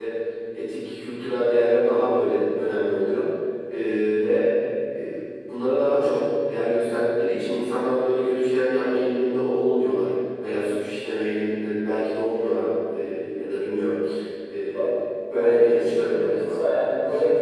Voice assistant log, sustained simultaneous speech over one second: present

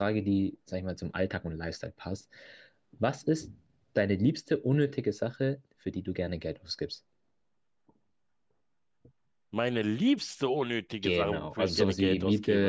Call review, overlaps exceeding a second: present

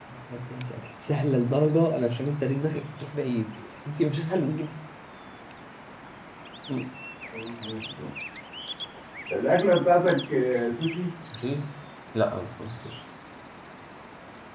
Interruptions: none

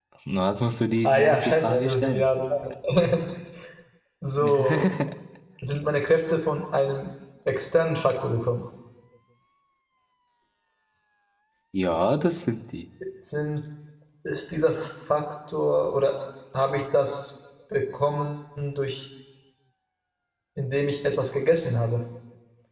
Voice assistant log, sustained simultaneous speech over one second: present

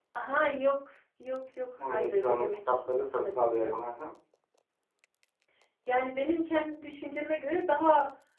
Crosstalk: present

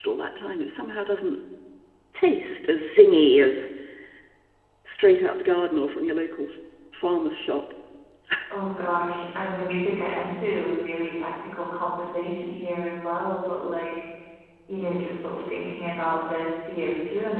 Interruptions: none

